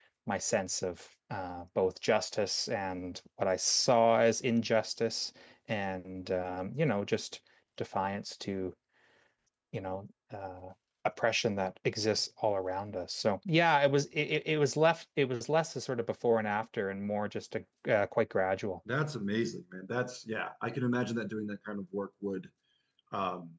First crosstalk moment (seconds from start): none

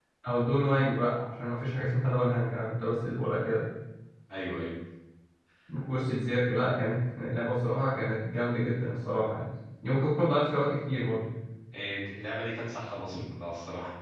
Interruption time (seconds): none

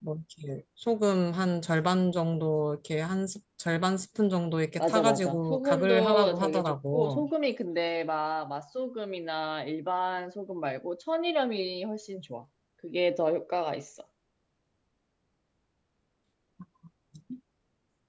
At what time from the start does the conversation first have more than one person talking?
4.8 s

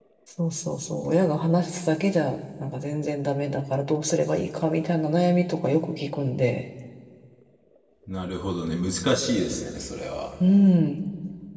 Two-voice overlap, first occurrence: none

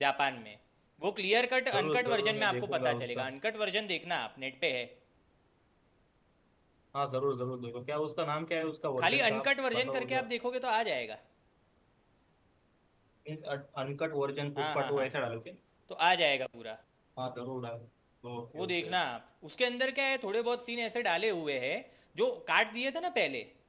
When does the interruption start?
1.8 s

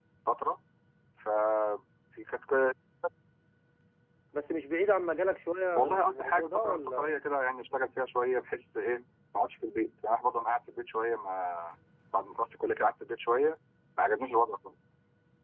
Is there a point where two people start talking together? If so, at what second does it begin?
5.8 s

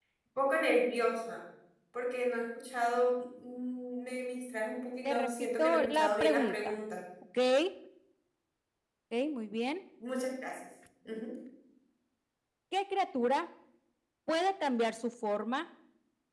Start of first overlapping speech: 5.0 s

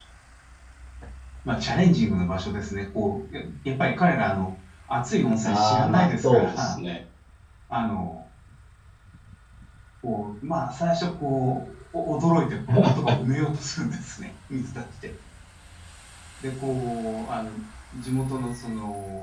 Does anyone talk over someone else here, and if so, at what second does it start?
5.4 s

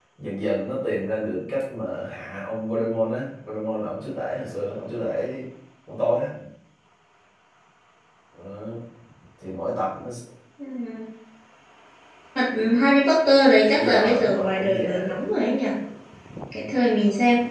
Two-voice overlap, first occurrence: 13.8 s

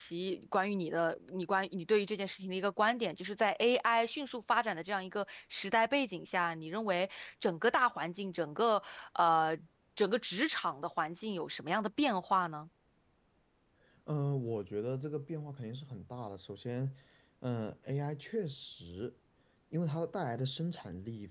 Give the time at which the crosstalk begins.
none

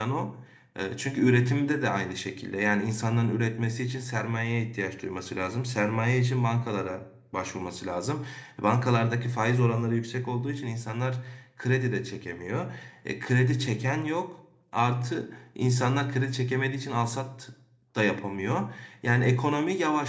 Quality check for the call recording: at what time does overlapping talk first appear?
none

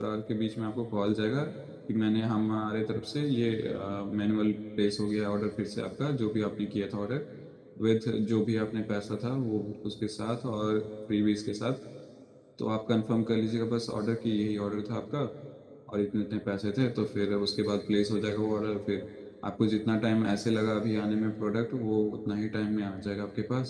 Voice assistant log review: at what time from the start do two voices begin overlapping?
none

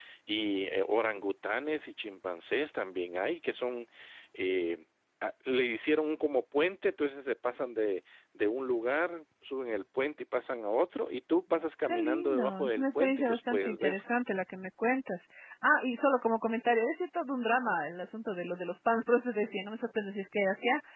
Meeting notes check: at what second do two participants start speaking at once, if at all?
11.8 s

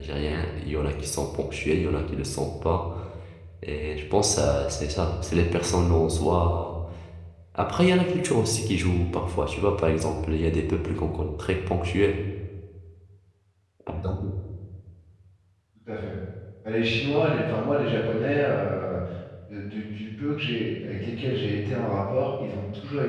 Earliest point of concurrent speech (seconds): none

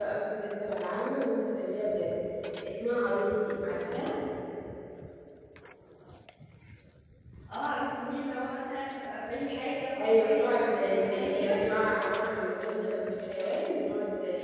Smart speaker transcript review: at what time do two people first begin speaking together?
10.0 s

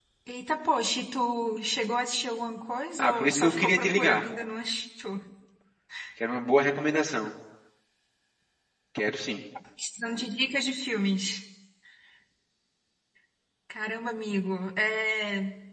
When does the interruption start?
3.0 s

